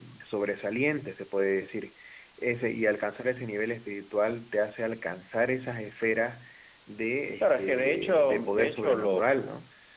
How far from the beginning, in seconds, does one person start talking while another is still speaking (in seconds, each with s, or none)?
7.3 s